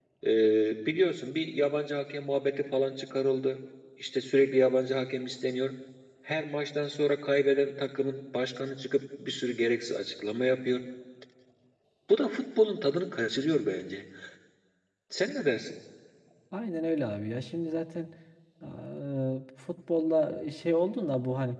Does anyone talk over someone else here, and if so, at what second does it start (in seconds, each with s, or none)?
none